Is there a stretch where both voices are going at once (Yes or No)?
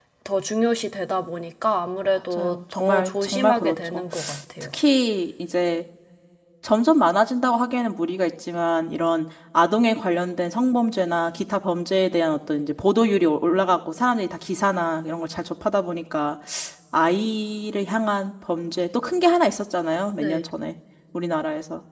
Yes